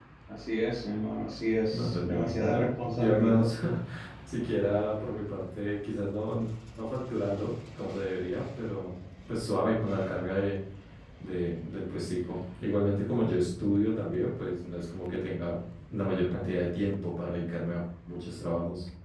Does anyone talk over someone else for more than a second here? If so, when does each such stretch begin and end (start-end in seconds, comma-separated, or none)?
1.7-3.5